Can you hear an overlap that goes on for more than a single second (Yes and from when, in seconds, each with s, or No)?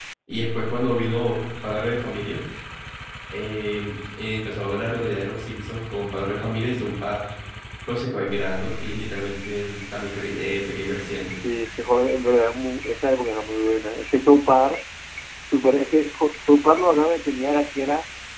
No